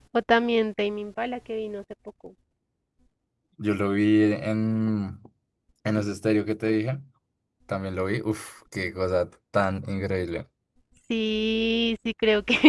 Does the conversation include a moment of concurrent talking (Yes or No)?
No